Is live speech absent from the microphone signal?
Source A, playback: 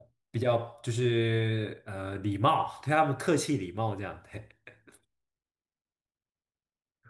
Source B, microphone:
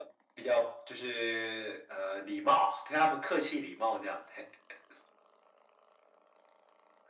Yes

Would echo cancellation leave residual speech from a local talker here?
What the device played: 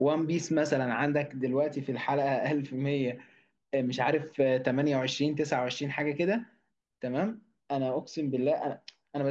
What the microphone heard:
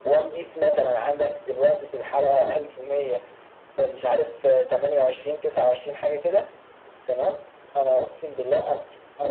No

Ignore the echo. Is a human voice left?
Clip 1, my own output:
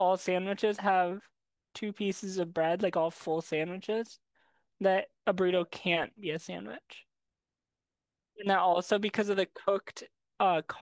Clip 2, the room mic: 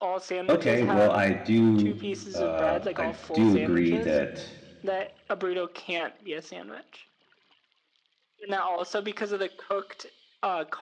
Yes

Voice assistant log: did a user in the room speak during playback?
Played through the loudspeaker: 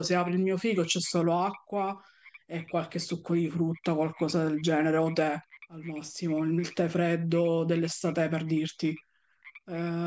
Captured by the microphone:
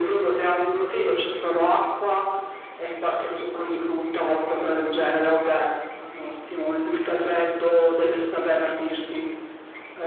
No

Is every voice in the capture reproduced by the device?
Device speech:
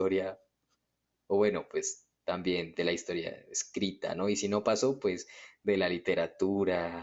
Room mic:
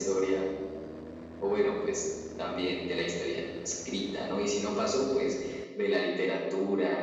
Yes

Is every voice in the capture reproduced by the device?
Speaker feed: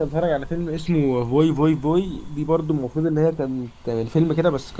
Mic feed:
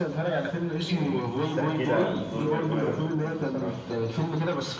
No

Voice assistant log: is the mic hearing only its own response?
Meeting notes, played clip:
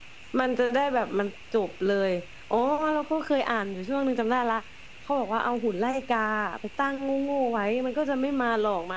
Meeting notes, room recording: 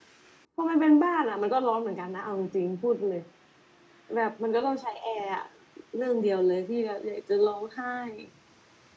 No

